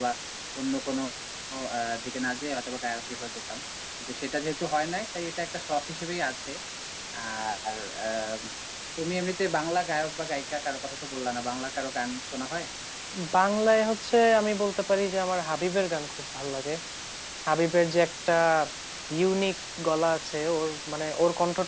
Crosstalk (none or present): none